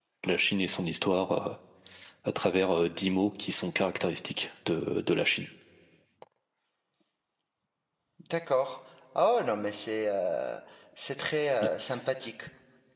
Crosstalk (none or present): none